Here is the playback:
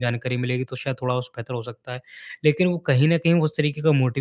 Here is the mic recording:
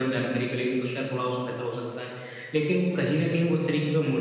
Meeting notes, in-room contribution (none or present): none